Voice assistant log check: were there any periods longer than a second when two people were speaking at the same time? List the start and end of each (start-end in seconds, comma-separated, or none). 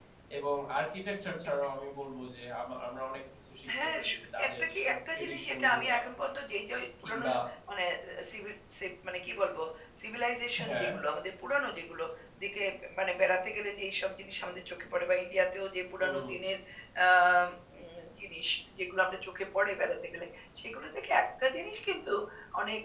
4.5-6.0